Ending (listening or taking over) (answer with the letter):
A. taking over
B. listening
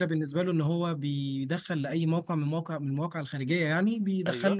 B